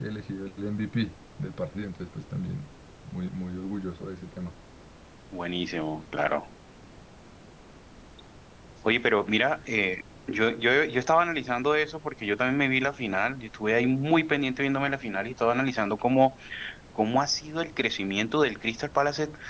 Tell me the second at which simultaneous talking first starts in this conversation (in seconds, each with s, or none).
none